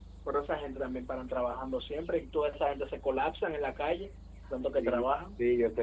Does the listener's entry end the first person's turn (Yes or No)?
Yes